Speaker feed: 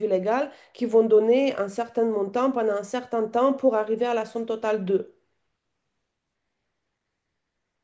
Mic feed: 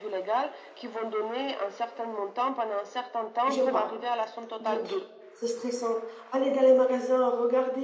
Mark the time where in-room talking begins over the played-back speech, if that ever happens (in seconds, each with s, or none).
3.5 s